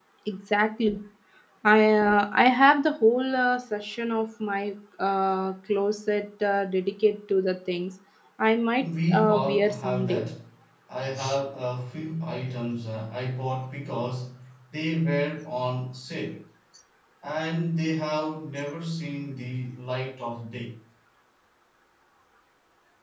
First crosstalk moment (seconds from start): 8.8 s

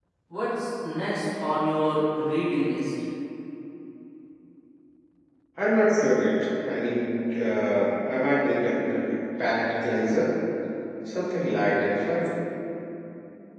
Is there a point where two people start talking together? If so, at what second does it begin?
none

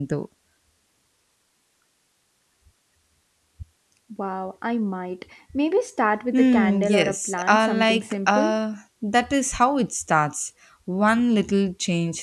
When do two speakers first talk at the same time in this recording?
6.3 s

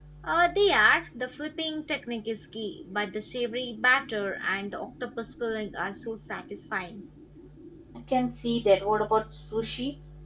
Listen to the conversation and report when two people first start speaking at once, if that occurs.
none

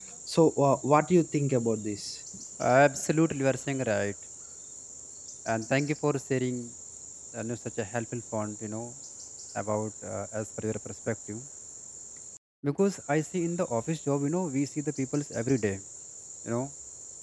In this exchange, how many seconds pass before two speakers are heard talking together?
none

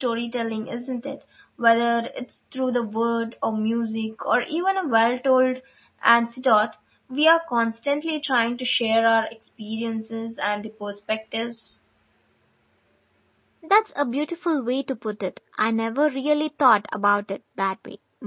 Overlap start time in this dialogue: none

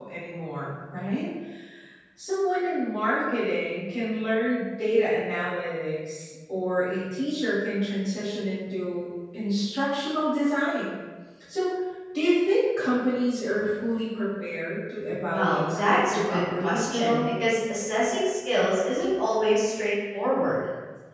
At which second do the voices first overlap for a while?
15.3 s

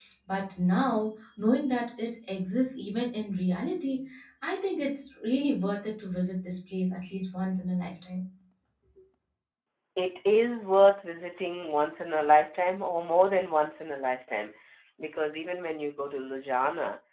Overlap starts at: none

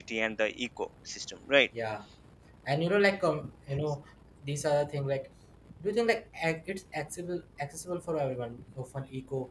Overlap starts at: none

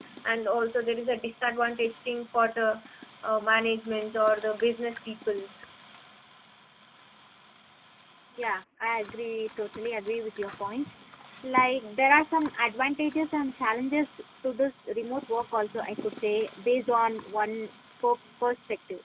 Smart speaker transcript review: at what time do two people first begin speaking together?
none

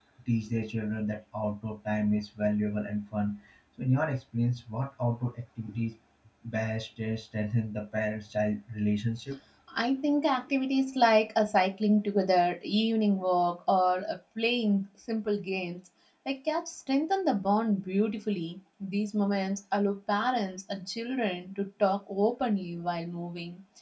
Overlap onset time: none

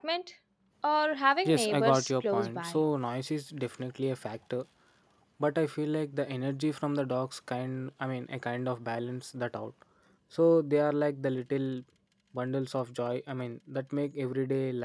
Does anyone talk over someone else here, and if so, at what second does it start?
1.4 s

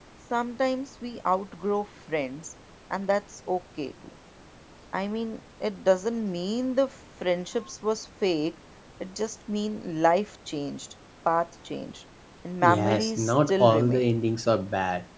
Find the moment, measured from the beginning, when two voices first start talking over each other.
12.6 s

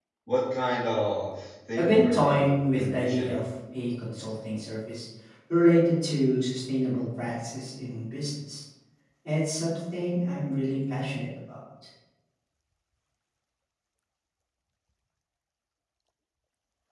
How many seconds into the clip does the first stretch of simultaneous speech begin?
1.8 s

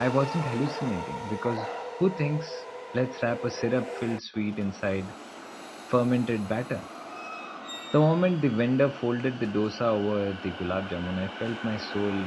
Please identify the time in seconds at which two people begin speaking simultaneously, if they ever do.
none

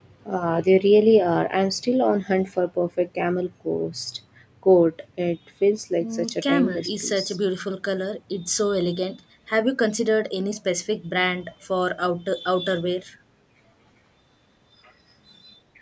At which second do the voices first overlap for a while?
6.0 s

